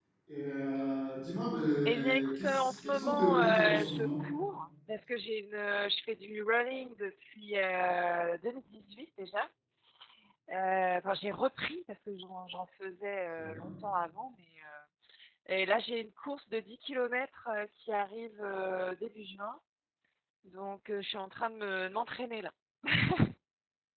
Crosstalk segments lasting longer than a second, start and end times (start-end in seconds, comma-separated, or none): 1.9-4.1